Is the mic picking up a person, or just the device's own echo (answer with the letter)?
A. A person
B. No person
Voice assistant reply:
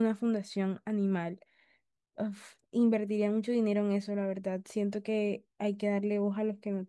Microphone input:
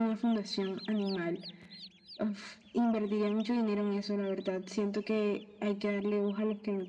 B